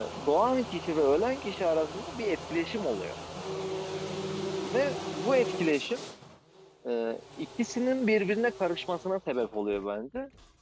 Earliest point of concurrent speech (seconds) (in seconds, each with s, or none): none